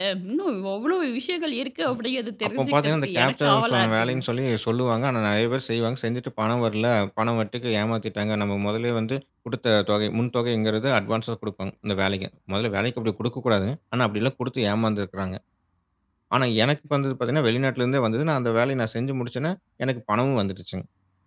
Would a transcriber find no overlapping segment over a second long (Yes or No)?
No